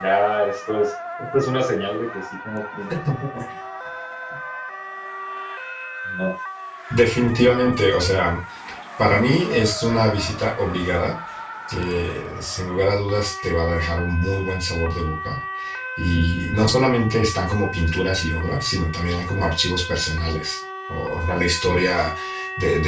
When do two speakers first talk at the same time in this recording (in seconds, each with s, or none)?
none